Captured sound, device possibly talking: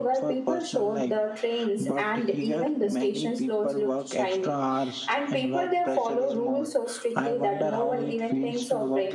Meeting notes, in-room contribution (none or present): none